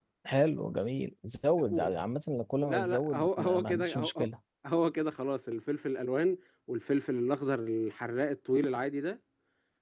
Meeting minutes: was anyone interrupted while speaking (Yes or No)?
Yes